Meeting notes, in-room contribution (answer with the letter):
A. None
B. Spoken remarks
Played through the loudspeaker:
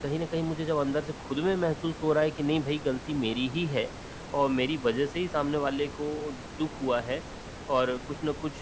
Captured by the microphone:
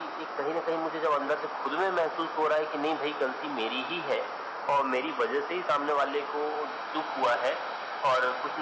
A